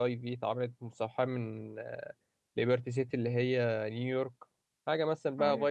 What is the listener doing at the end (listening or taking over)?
listening